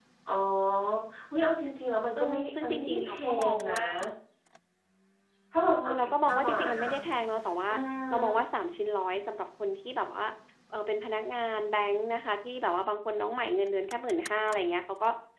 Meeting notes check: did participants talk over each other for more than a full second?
Yes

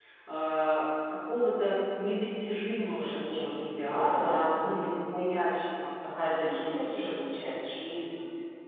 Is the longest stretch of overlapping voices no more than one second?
No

